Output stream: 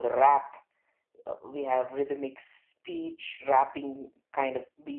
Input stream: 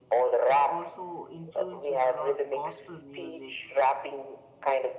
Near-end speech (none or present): present